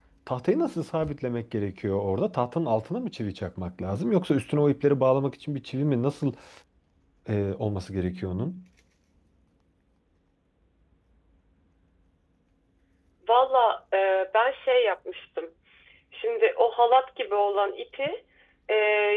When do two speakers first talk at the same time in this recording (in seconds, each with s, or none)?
none